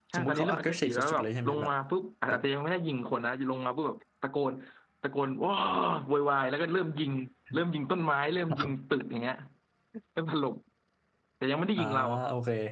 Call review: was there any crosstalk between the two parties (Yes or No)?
Yes